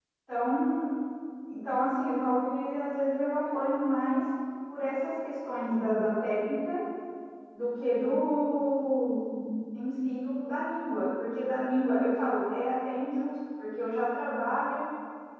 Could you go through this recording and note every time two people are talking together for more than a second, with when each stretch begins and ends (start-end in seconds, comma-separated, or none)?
none